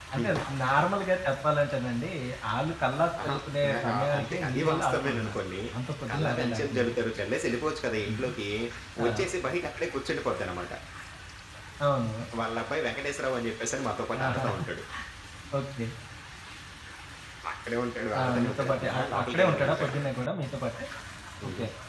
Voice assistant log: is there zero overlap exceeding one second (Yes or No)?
No